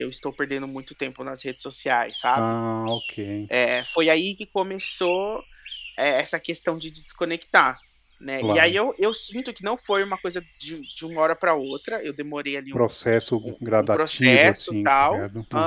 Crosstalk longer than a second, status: present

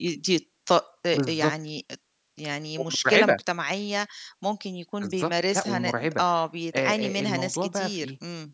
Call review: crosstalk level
present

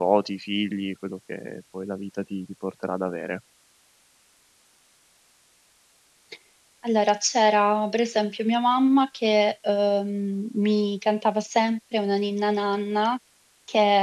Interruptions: none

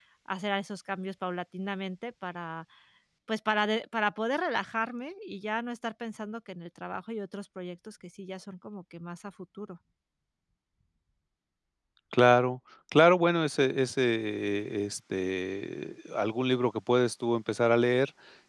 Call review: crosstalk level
none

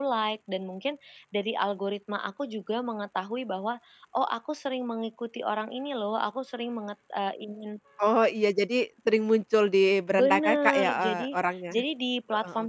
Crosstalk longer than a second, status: present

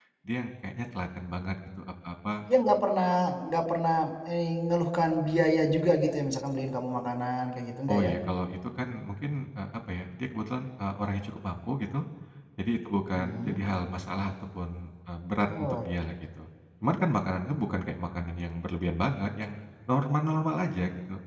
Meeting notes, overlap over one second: none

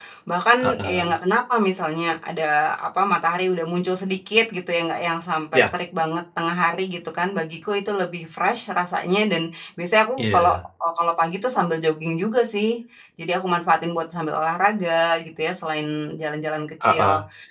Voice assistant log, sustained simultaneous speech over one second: none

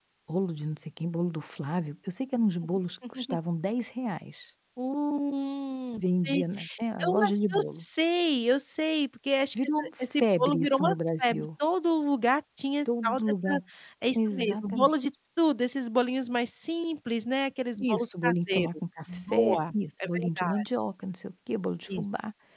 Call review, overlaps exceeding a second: present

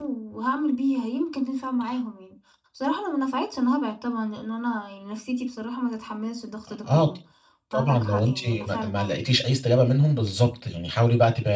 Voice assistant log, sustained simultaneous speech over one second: present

